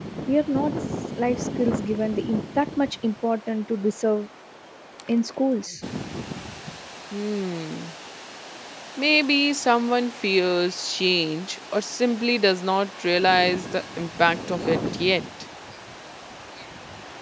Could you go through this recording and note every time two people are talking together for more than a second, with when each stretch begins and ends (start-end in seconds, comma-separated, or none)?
none